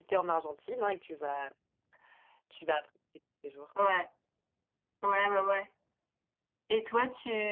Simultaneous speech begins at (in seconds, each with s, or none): none